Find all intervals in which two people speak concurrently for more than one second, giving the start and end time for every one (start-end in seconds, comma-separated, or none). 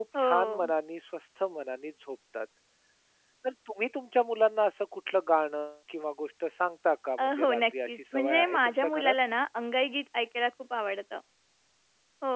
7.2-9.1